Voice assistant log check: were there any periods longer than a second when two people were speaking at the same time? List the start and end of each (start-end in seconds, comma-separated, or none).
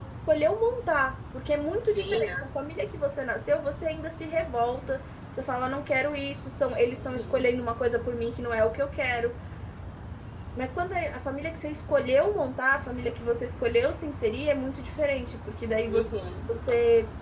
none